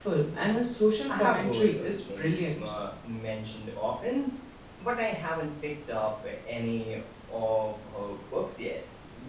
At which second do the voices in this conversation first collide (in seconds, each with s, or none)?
1.1 s